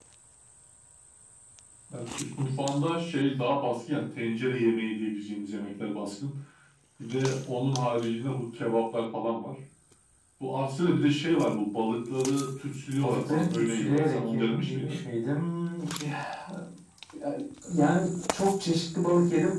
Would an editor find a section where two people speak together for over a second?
Yes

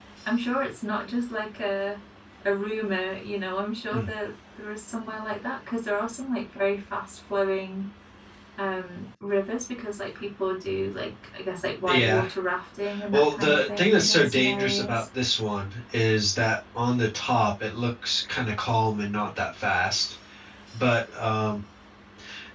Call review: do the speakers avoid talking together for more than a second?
No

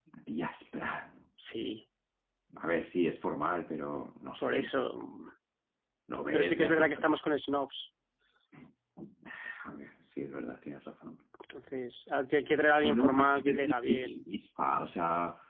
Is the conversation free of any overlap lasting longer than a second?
No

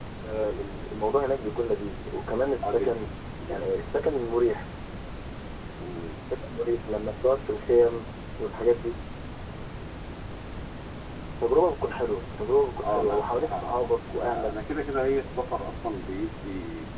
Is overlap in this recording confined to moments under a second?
No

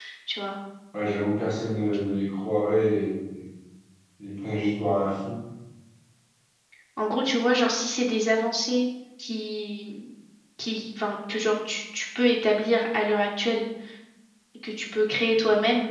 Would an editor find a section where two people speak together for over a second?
No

